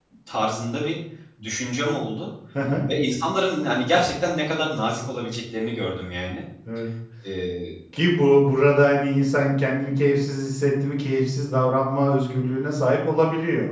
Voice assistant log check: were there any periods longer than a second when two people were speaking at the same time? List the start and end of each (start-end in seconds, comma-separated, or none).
none